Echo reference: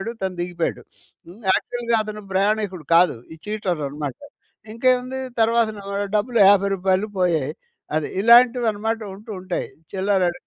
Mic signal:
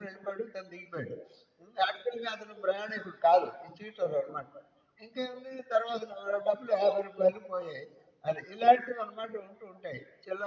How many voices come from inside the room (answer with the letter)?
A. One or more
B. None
B